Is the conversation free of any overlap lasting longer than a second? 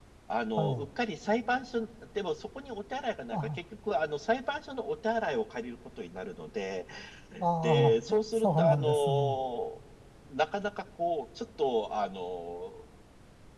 No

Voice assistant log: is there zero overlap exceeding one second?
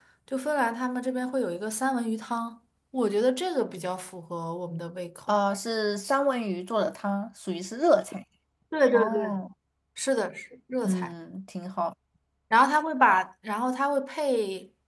Yes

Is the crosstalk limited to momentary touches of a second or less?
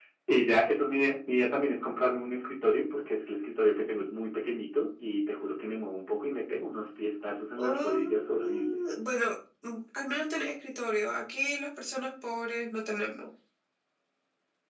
No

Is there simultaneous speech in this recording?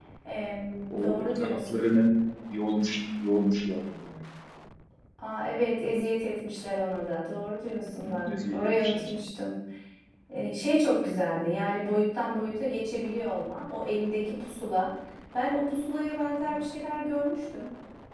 Yes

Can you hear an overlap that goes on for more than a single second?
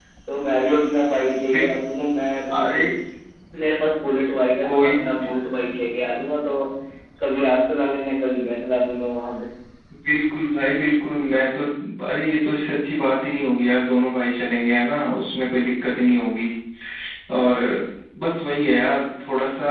No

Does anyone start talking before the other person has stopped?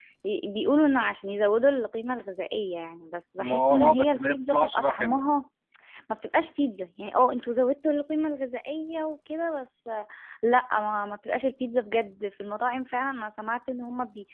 Yes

